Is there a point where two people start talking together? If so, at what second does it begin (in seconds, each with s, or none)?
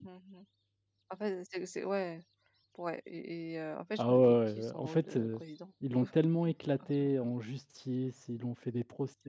4.0 s